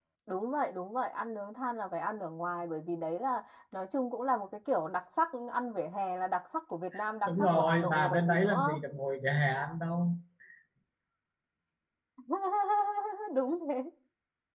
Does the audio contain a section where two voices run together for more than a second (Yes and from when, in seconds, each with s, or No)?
Yes, from 7.3 s